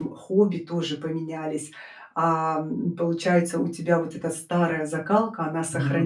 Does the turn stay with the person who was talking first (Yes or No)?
Yes